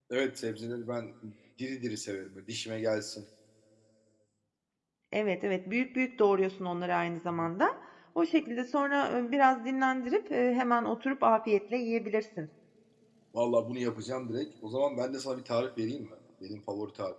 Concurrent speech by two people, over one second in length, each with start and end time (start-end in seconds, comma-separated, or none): none